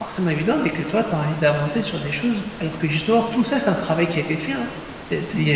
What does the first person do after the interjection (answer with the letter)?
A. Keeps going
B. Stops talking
A